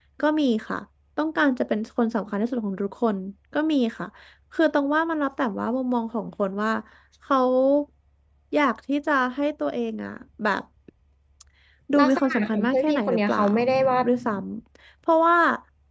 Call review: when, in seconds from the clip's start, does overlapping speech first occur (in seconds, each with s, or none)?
12.0 s